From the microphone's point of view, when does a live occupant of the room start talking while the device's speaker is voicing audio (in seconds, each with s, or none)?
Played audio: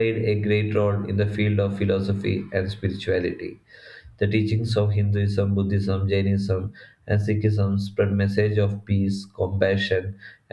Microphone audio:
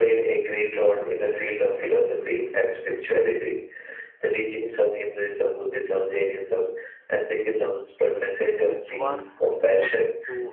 7.5 s